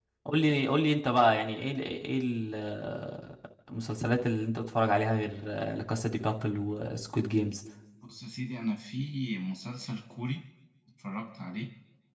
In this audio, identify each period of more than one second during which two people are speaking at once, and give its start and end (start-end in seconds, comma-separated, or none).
none